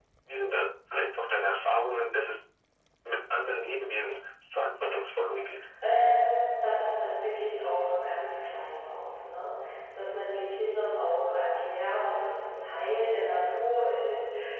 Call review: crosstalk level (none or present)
none